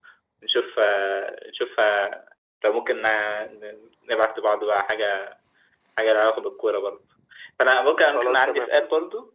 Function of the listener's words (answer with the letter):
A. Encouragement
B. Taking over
A